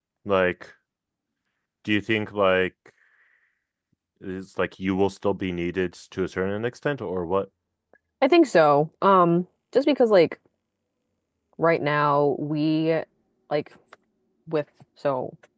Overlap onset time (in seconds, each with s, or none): none